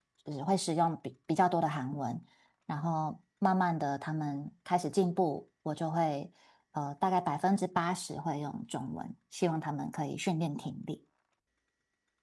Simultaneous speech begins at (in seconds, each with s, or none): none